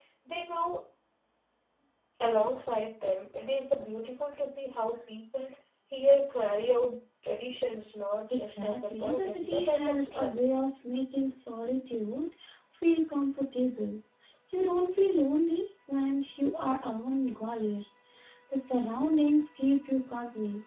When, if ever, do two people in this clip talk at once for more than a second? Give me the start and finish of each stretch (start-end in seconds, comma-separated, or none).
8.3-10.4